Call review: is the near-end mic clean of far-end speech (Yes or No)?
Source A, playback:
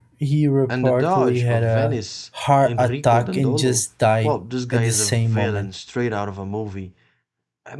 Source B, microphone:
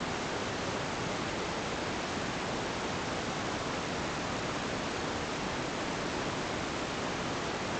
Yes